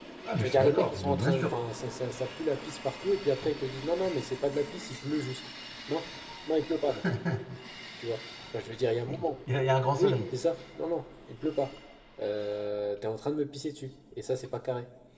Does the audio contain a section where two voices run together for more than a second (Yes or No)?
Yes